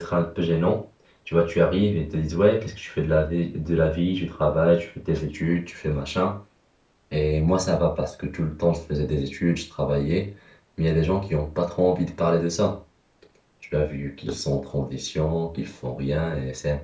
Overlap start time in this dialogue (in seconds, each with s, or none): none